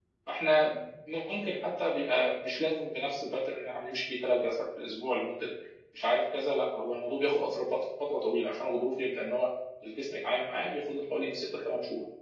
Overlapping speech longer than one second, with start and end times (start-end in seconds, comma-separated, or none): none